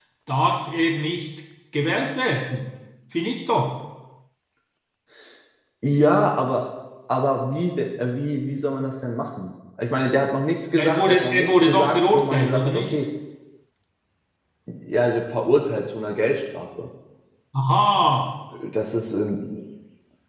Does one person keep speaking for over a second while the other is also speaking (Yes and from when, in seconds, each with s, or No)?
Yes, from 10.8 s